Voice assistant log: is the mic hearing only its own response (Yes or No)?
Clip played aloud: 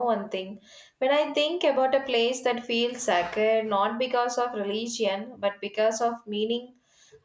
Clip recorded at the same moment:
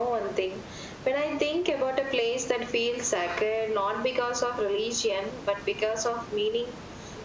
Yes